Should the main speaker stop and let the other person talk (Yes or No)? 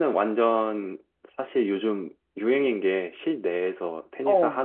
No